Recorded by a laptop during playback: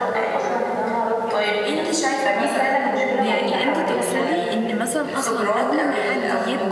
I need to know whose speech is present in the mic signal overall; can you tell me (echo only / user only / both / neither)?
both